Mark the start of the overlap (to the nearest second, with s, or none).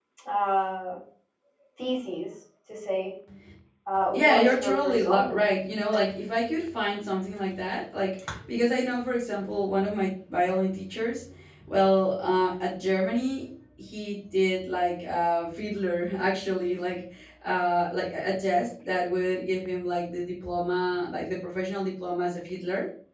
4 s